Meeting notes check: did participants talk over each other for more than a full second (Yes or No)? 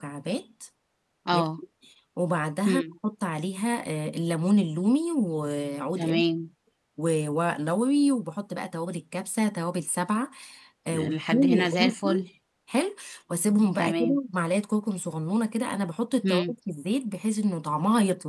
Yes